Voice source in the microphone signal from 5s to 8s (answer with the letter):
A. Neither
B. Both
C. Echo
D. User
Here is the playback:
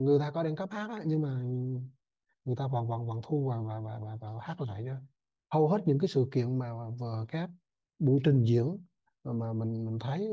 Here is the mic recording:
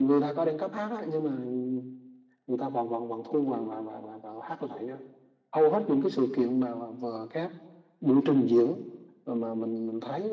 C